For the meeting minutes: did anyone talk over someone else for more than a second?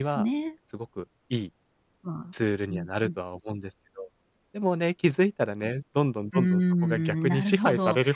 Yes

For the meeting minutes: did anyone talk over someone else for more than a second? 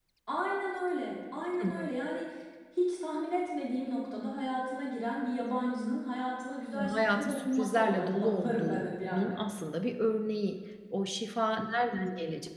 Yes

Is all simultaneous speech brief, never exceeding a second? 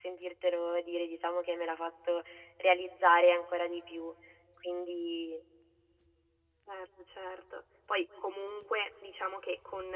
Yes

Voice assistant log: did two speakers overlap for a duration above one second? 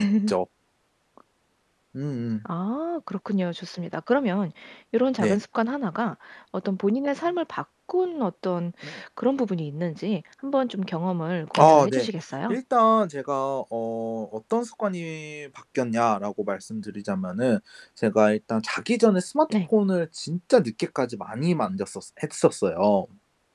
No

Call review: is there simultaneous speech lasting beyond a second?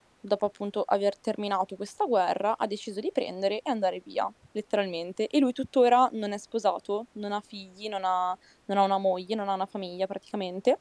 No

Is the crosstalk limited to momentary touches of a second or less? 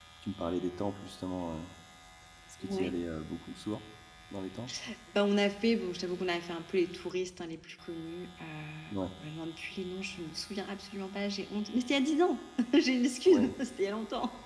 Yes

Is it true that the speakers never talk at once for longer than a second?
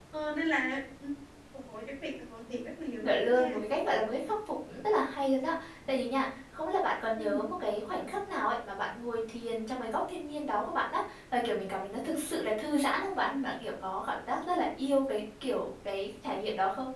Yes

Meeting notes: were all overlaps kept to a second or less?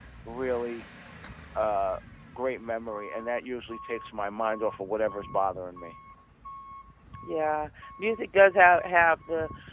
Yes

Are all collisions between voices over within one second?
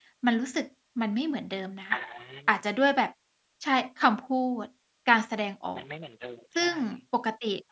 Yes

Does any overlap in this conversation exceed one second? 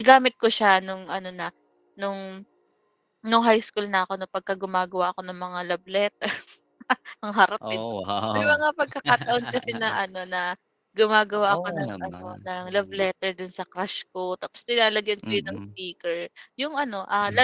Yes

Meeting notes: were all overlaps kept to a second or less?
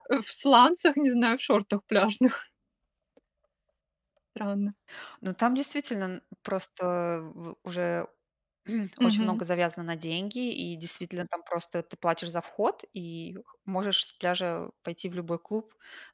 Yes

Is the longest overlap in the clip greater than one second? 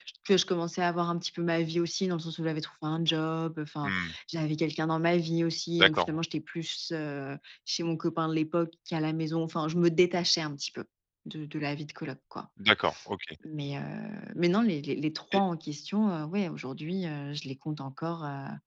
No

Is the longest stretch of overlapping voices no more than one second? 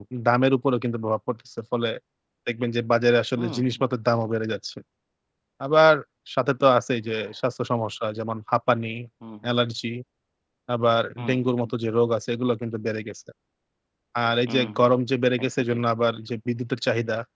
Yes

